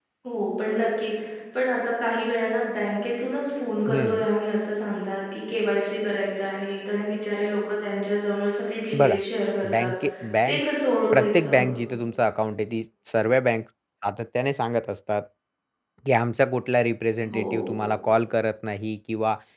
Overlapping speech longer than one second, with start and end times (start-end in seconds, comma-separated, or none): none